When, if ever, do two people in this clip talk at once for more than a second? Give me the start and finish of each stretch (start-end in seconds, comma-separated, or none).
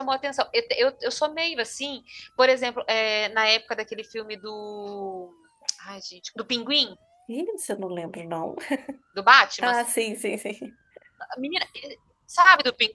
none